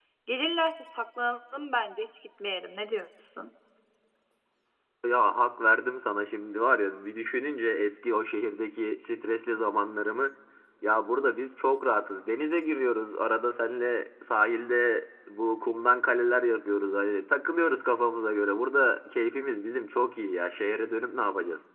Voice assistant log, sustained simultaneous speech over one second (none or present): none